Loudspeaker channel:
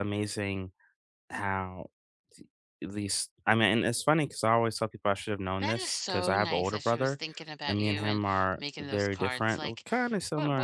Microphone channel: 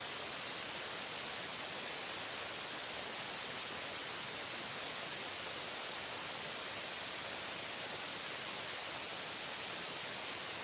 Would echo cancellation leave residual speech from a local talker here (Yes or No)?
No